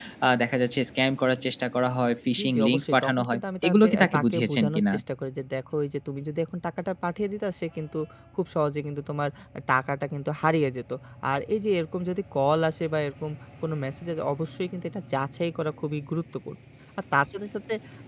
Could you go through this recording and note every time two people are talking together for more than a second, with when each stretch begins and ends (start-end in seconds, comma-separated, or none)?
2.4-4.9